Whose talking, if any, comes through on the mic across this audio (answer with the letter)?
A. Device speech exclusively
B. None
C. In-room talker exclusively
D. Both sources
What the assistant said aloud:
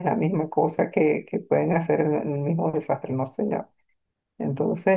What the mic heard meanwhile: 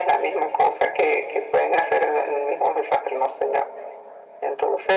A